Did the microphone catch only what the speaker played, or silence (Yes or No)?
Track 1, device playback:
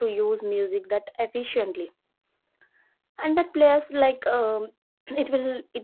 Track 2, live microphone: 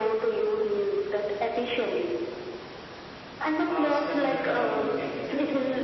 No